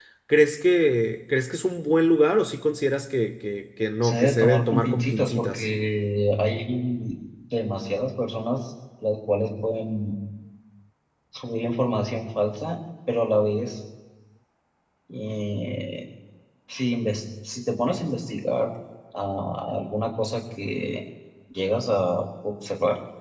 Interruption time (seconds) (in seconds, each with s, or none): 4.0 s